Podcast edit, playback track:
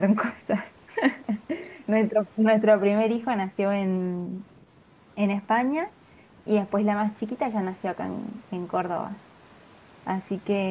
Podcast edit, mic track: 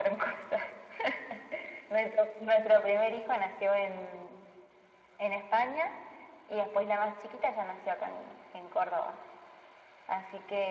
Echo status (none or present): present